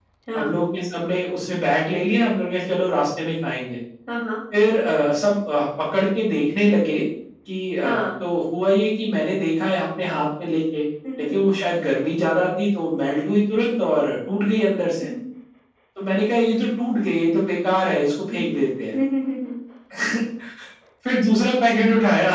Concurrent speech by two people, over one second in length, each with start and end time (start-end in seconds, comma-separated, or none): none